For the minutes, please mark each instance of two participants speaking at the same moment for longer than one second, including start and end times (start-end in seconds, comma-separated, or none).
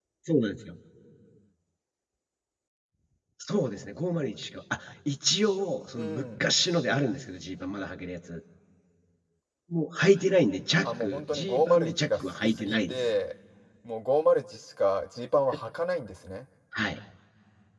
10.8-13.0